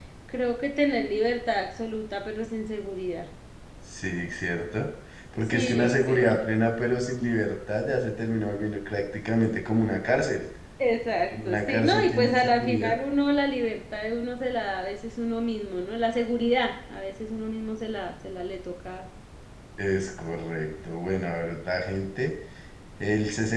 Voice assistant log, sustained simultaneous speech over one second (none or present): present